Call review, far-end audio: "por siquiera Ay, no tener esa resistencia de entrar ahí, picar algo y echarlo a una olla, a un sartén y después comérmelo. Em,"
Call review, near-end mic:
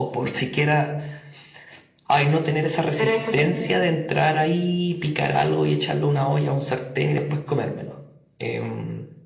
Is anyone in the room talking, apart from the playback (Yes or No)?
Yes